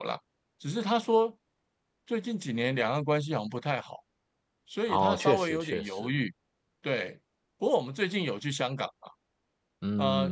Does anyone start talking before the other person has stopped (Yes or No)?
Yes